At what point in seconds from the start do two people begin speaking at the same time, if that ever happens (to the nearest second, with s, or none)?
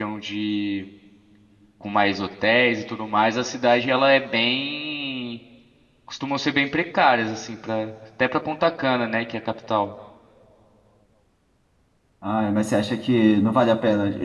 none